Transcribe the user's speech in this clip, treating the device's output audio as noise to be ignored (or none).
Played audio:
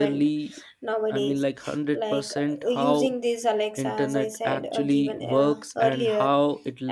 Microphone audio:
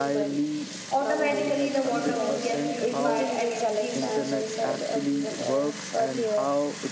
automatically the water will get purified and it gives us